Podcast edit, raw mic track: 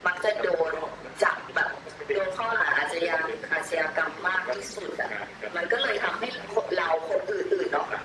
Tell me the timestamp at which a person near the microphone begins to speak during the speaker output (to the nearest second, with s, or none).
none